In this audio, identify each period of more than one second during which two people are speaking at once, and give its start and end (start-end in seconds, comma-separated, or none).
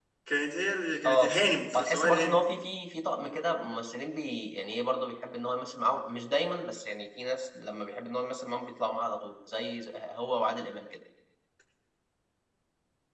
1.1-2.4